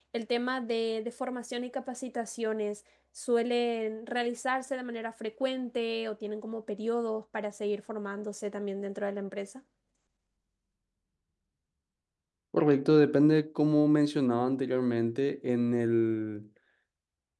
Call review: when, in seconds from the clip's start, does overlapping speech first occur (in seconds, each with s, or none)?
none